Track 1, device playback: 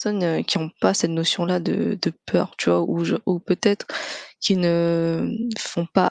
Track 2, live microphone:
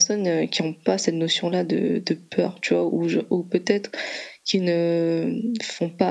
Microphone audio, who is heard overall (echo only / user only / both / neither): echo only